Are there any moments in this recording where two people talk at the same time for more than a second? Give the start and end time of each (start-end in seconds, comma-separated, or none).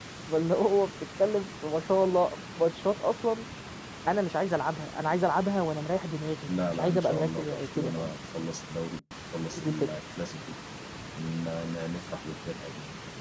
6.5-8.1